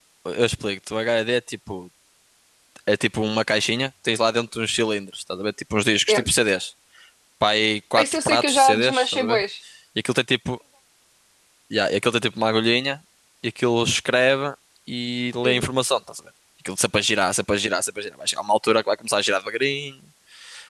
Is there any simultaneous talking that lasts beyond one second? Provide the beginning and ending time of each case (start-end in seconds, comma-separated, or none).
8.0-9.4